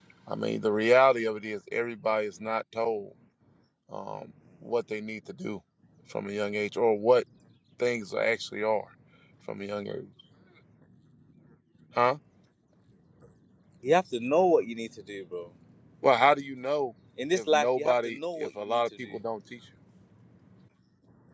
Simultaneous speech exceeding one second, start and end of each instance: 17.3-19.1

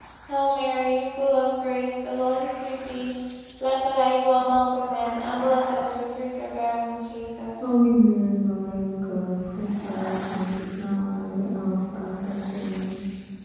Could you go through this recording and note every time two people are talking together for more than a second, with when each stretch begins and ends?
none

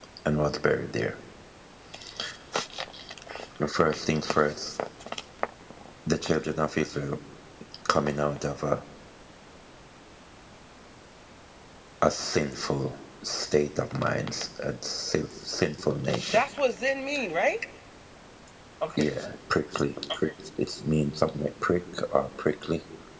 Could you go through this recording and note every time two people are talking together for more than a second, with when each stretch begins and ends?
none

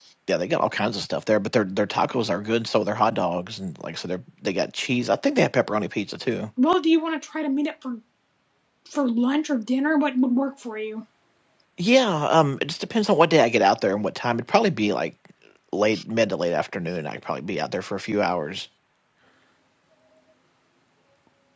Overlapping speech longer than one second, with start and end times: none

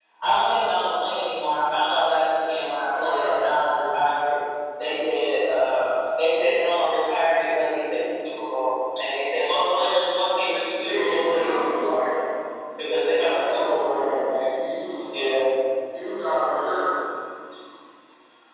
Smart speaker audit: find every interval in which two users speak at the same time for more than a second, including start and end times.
10.8-12.1, 13.2-14.4

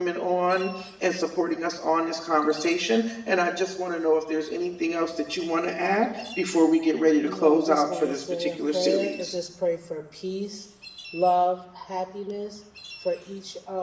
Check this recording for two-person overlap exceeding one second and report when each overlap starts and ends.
7.2-9.4

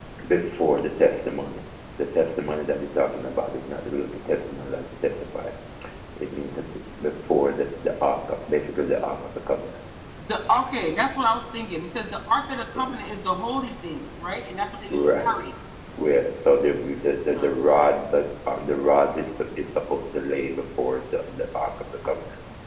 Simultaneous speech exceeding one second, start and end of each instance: none

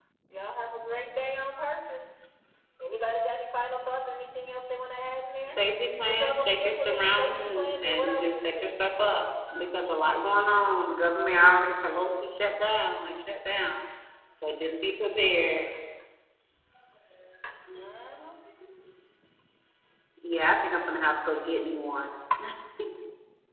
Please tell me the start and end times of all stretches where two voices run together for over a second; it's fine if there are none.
6.0-8.7

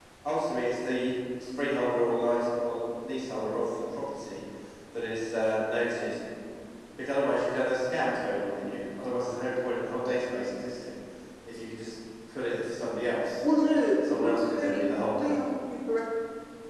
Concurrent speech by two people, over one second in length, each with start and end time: 14.1-15.4

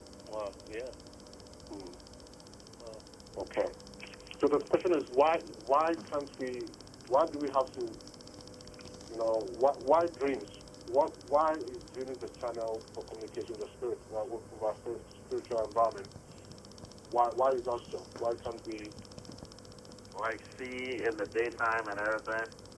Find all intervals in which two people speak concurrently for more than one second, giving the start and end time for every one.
none

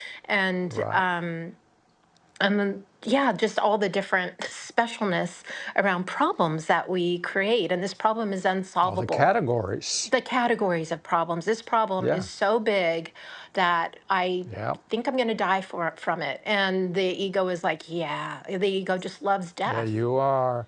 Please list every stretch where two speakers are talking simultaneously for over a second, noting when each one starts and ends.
none

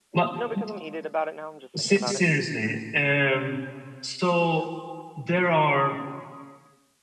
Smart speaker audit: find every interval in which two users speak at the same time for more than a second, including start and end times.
none

